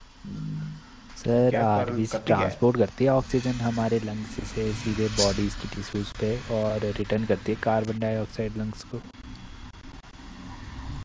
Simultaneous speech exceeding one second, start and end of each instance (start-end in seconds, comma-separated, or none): 1.4-2.5